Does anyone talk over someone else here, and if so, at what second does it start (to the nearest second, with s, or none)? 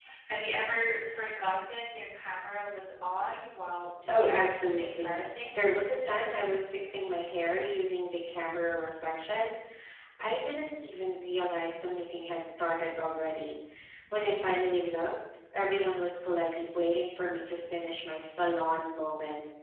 4 s